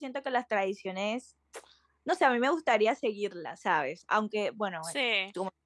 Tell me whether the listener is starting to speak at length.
No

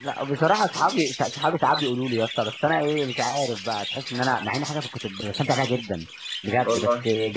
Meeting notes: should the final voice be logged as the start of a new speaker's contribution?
No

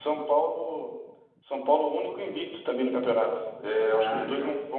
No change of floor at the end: Yes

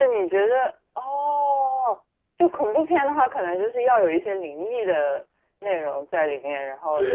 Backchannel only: No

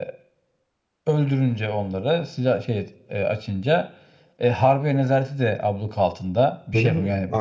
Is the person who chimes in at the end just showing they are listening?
No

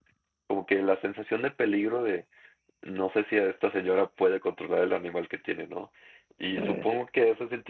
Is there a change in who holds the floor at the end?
No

